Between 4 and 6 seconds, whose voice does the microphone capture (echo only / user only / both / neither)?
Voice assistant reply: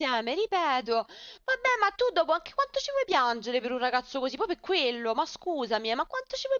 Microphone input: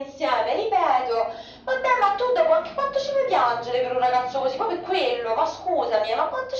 echo only